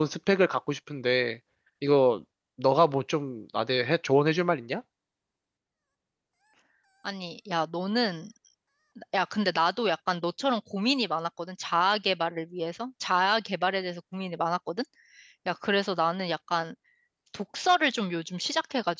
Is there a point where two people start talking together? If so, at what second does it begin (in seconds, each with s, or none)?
none